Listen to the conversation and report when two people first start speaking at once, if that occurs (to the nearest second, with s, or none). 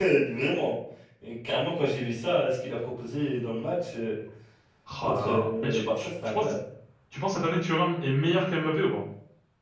5 s